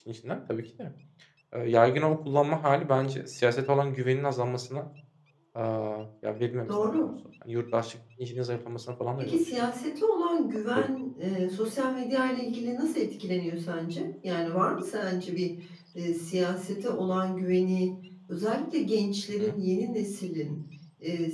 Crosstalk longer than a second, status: none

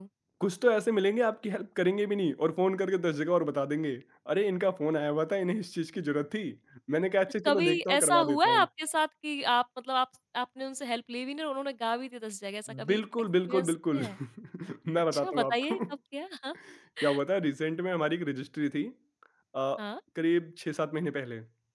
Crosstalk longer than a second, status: present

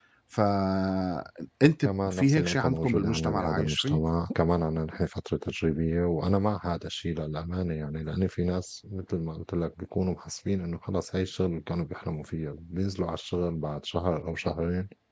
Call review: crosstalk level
present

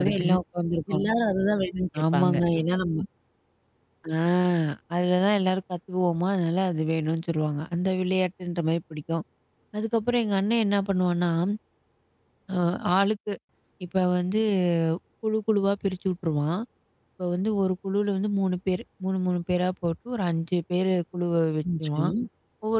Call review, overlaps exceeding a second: none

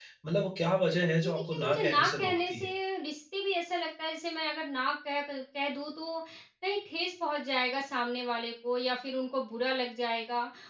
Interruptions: present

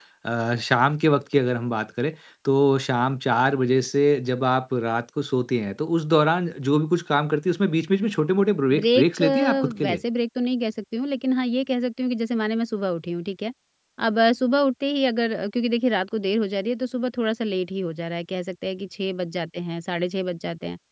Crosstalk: present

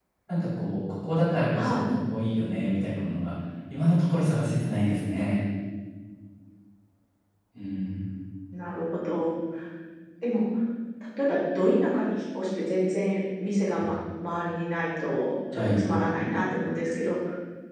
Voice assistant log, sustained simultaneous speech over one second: none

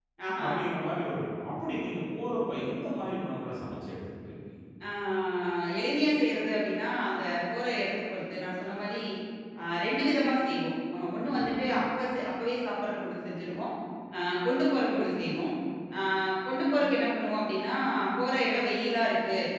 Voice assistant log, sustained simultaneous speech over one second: none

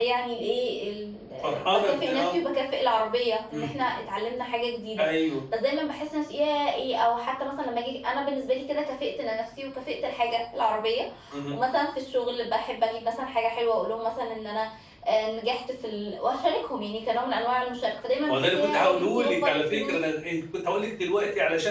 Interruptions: present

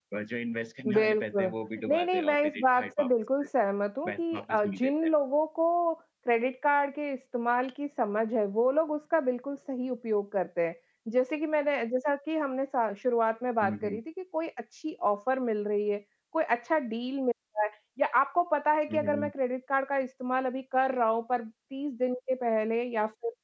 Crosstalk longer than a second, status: present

